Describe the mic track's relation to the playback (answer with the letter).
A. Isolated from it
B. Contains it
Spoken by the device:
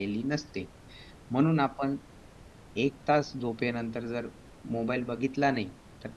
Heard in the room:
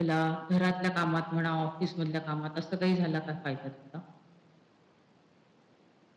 A